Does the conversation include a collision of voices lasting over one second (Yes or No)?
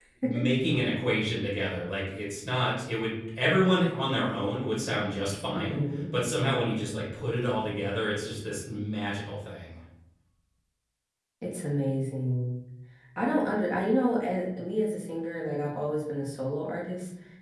No